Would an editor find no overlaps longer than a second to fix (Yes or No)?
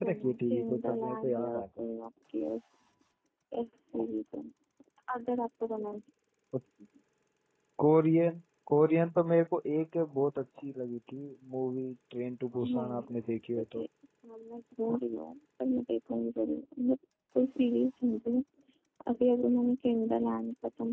No